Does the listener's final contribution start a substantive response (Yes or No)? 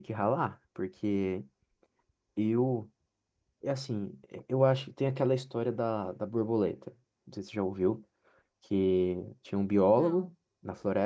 No